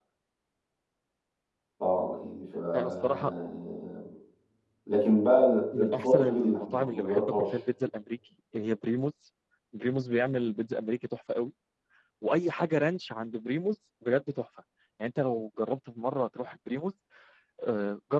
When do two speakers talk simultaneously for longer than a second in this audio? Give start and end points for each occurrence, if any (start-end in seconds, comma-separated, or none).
5.7-7.6